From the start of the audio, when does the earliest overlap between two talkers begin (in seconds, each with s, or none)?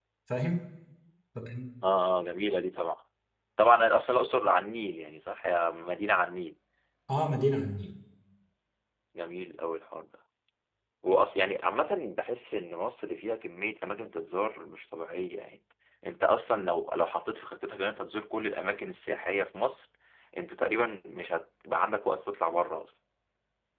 none